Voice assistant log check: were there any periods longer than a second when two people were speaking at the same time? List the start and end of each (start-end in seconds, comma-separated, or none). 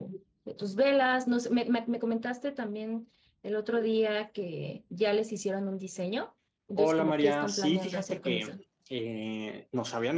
6.8-8.5